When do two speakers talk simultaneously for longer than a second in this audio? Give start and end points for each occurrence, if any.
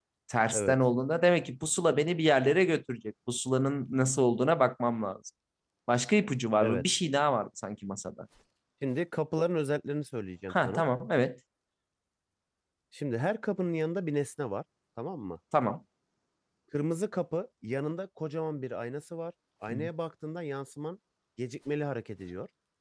none

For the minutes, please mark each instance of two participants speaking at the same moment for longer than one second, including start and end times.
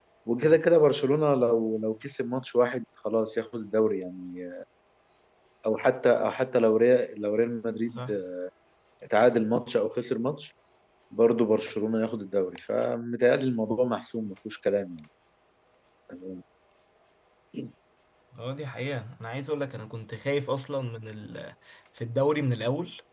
none

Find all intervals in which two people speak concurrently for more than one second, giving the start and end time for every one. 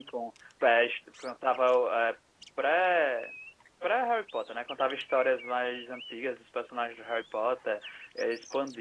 none

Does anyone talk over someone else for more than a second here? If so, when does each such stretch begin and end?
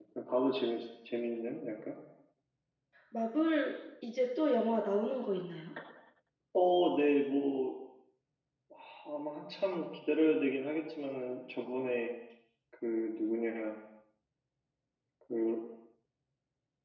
none

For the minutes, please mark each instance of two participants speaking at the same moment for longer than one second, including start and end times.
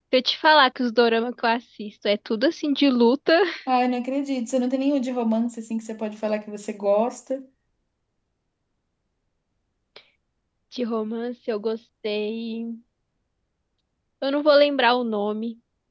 none

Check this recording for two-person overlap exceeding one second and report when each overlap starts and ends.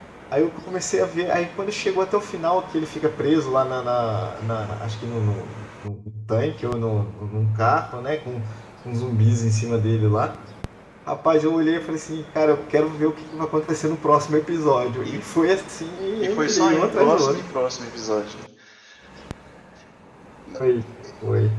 16.2-17.4

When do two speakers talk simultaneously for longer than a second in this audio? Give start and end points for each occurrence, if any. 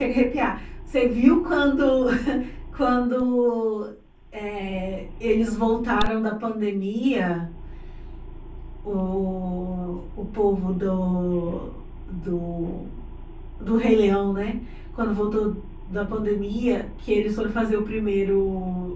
none

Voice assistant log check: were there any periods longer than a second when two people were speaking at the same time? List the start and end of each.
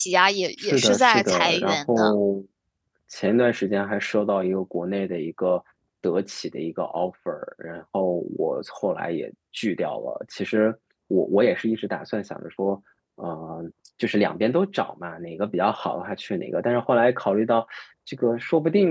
0.6-2.1

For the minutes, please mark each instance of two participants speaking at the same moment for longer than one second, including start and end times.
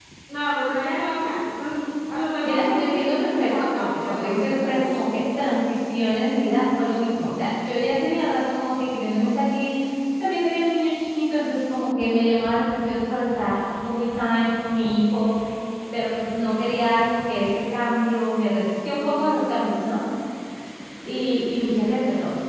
2.4-4.8

